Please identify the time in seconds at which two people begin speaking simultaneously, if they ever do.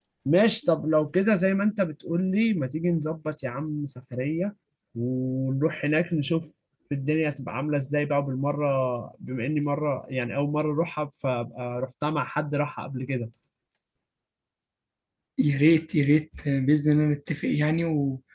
none

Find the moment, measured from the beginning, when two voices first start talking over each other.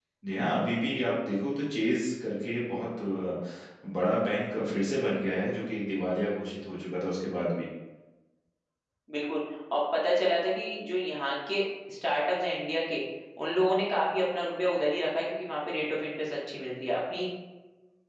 none

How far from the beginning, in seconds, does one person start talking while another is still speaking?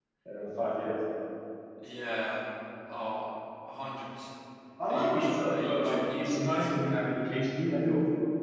4.9 s

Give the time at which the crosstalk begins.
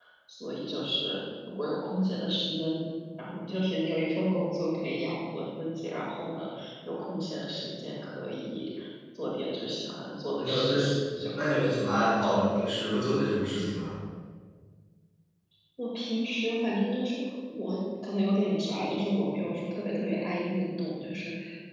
10.4 s

